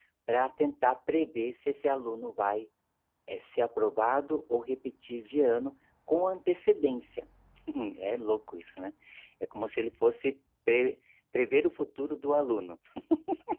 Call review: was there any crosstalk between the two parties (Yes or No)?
No